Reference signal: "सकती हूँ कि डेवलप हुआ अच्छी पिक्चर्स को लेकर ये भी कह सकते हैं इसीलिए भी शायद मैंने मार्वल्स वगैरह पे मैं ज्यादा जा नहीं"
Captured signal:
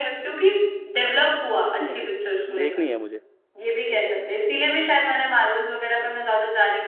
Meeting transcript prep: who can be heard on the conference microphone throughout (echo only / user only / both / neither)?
both